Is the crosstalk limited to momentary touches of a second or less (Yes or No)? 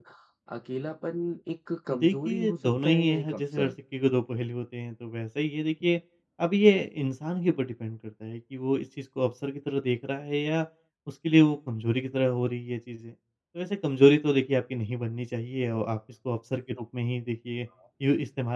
No